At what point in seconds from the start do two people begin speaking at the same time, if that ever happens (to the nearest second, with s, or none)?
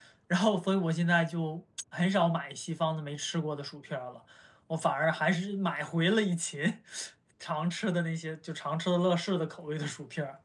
none